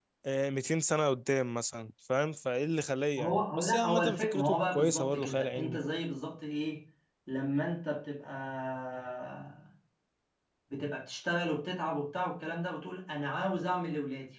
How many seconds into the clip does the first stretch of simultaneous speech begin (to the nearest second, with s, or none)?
3 s